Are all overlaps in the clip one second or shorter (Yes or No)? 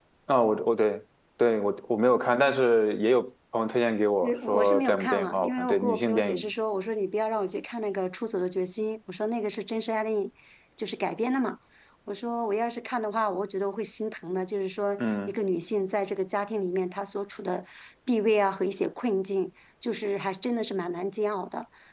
No